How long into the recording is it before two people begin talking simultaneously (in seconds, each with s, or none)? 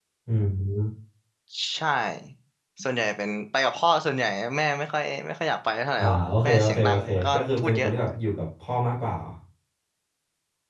6.0 s